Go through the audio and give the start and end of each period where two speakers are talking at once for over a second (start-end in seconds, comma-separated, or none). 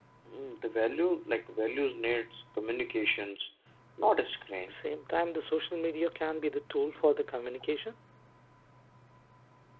none